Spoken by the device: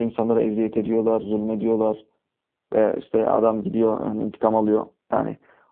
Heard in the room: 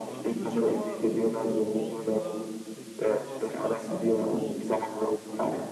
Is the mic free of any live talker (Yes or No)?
No